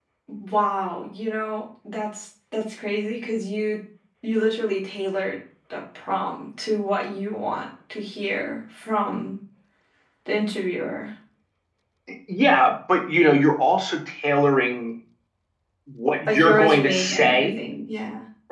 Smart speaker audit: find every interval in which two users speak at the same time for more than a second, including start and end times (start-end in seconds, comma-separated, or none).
16.3-17.6